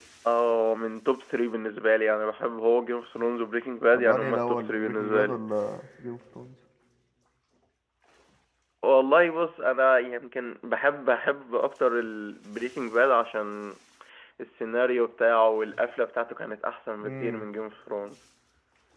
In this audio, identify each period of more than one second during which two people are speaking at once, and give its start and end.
3.9-5.4

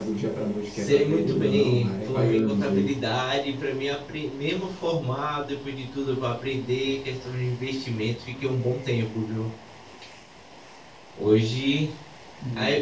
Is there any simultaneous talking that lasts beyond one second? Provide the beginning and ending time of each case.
0.7-2.9

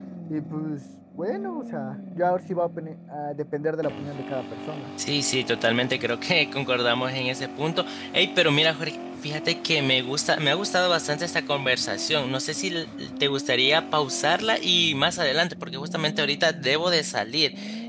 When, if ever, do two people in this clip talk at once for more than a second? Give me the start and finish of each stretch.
none

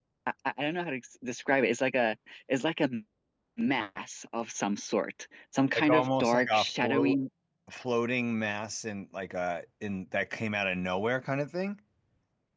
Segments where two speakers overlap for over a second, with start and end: 5.8-7.2

